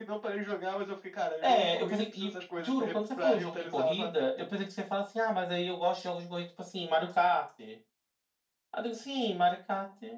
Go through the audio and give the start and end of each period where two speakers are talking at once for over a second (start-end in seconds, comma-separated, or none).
1.4-4.2